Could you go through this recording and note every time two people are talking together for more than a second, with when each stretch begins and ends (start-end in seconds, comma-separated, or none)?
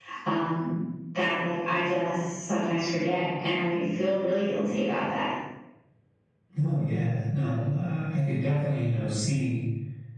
none